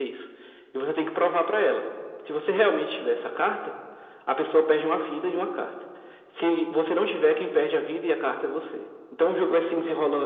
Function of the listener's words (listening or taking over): listening